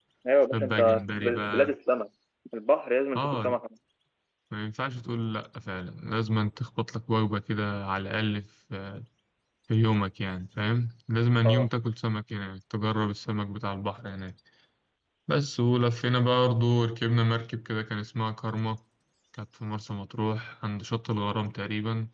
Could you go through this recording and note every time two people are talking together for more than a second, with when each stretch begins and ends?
0.5-1.7

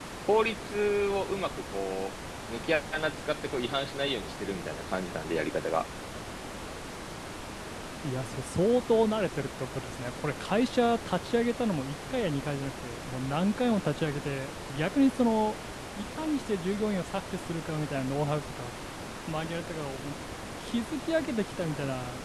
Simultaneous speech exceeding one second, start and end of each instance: none

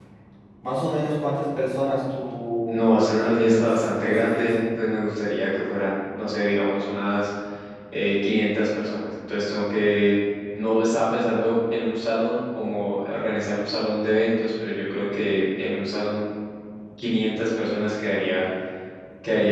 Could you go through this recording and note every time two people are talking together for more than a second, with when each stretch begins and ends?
2.6-4.6

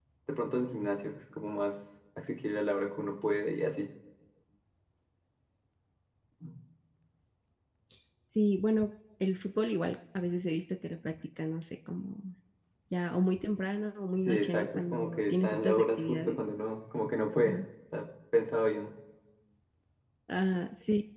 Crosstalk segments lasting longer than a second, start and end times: 14.3-16.4

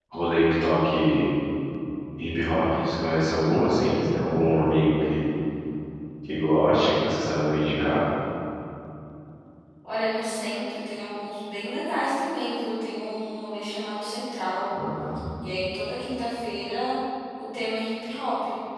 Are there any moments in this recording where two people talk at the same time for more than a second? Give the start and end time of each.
none

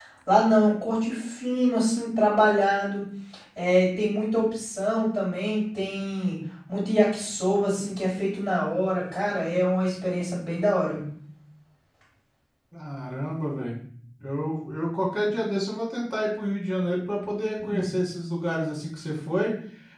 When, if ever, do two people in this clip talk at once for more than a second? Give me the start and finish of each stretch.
none

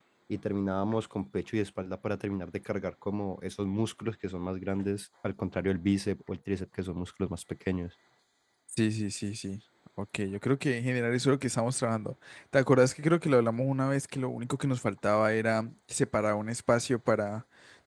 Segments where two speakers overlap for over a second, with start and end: none

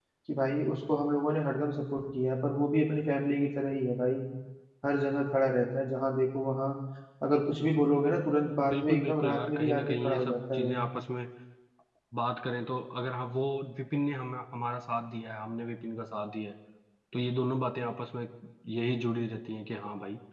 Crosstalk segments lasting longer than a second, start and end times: 8.7-10.8

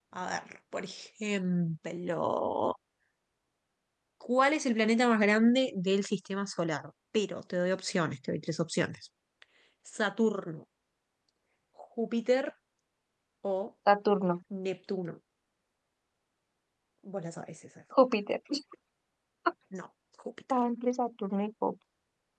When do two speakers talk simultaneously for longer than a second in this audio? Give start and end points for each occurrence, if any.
none

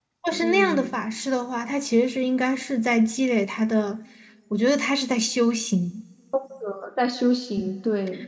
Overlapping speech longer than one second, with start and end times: none

